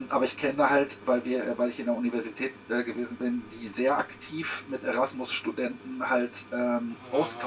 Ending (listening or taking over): listening